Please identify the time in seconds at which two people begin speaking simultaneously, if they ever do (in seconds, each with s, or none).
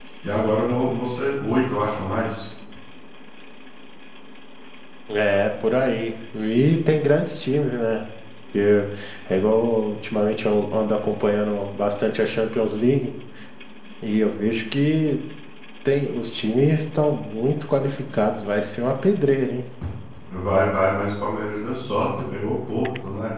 none